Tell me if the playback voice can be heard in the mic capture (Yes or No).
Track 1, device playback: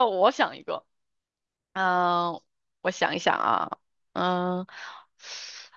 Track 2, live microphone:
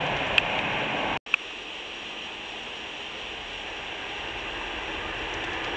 No